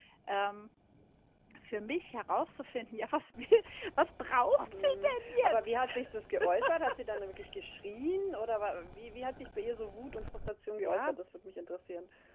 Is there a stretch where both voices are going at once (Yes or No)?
Yes